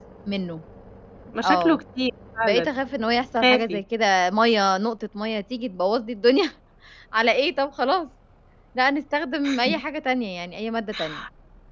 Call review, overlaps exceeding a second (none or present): none